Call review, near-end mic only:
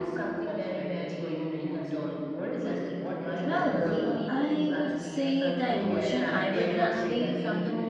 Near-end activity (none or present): present